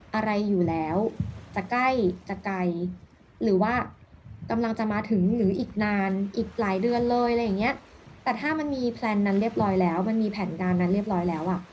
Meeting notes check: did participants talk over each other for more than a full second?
No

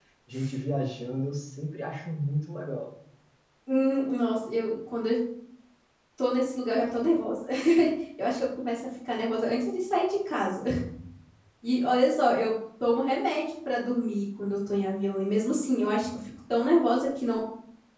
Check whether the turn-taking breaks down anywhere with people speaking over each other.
No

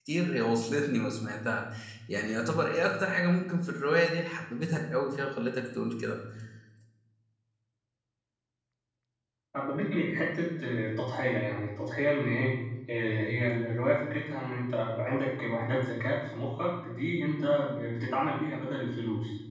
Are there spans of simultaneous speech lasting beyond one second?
No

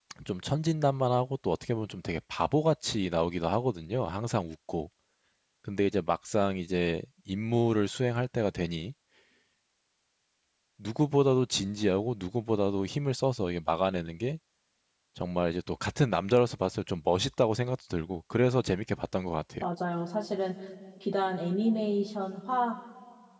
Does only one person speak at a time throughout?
Yes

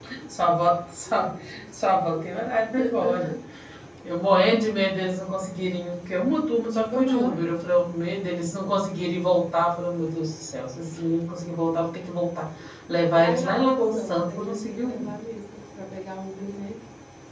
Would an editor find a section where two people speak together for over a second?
Yes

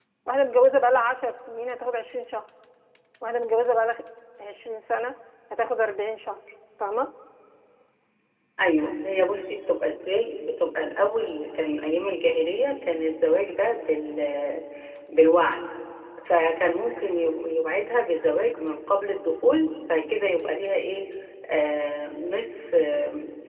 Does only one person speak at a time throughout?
Yes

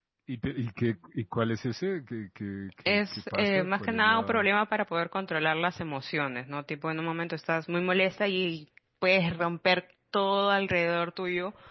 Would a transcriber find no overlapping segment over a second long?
No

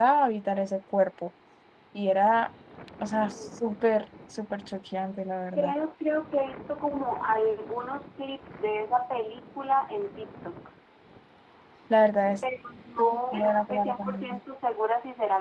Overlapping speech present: Yes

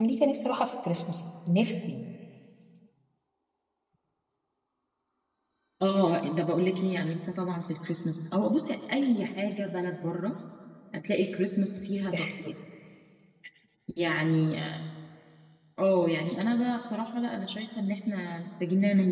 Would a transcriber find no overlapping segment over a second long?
Yes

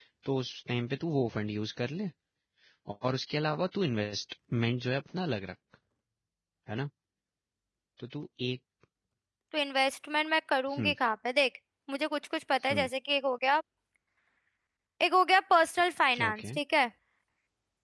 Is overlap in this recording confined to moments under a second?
Yes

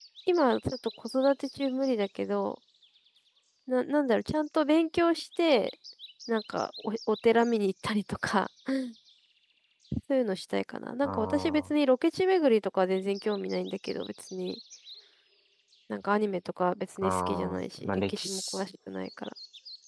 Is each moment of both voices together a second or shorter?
No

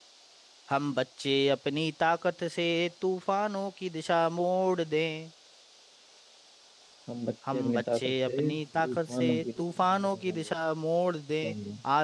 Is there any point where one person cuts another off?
Yes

